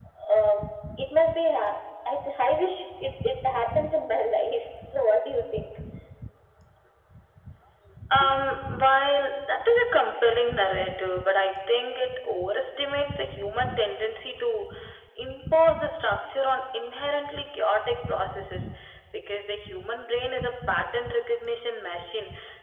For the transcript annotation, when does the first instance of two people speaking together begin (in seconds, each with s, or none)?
none